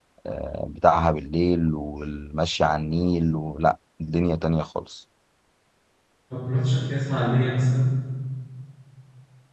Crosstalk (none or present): none